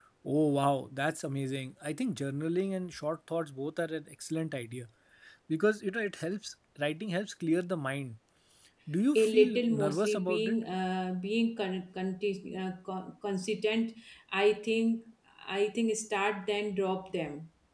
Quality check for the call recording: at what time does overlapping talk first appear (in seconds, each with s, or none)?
9.2 s